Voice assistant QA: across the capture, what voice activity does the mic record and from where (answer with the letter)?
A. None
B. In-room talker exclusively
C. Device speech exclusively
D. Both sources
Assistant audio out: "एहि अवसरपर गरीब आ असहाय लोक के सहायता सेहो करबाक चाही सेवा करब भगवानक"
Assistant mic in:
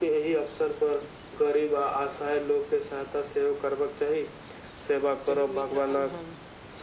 D